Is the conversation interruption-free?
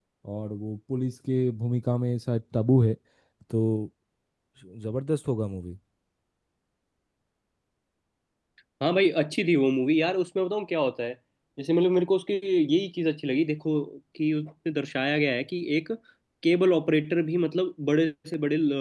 Yes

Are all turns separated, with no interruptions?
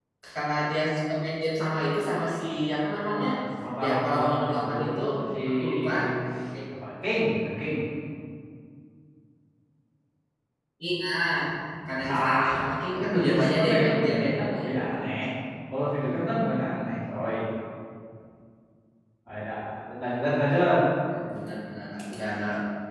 No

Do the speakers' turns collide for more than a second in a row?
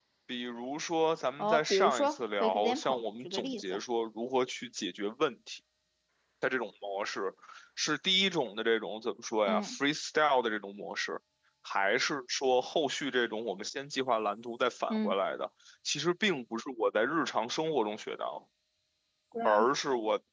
Yes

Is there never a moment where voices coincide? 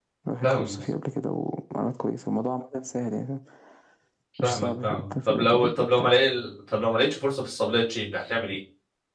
No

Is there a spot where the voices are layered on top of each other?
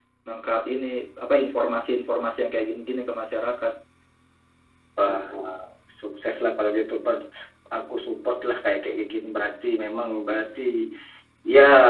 No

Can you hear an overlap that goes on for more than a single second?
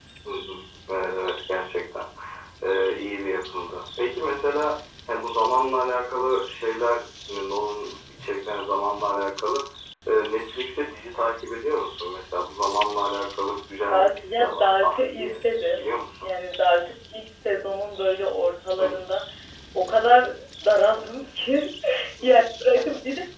Yes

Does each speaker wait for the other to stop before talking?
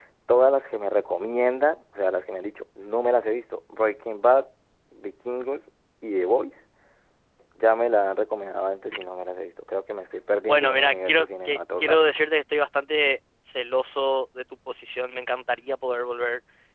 No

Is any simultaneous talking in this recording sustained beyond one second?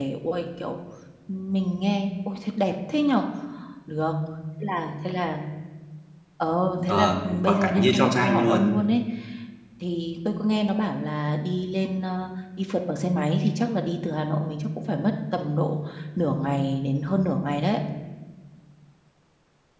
Yes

